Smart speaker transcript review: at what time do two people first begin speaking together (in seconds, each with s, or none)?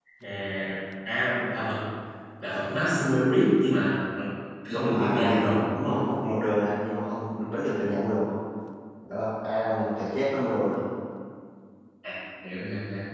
4.7 s